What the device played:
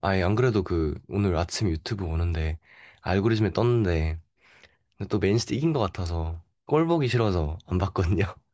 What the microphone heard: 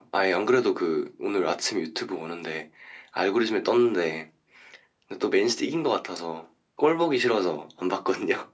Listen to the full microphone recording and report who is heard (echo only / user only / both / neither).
echo only